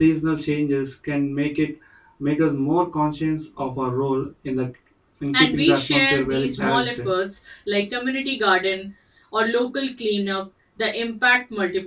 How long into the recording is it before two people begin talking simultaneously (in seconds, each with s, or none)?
5.3 s